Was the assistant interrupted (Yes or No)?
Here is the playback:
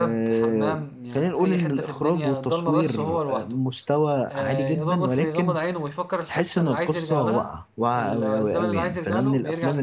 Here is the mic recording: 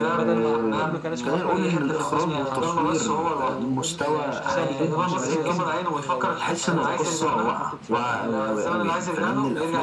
Yes